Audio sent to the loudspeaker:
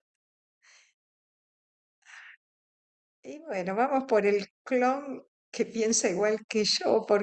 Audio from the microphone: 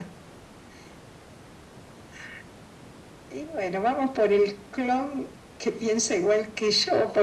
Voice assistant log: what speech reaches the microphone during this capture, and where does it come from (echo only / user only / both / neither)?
echo only